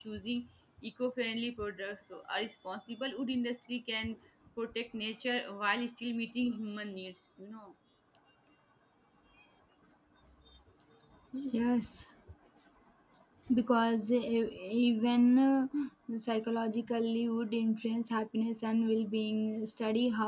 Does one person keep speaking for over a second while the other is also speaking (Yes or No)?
No